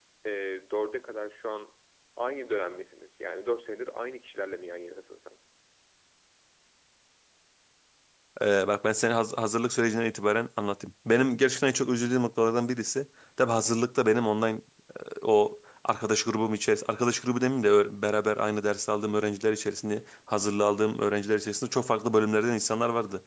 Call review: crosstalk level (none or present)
none